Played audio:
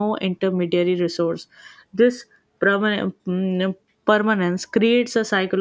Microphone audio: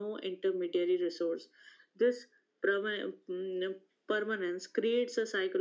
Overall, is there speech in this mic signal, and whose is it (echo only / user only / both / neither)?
echo only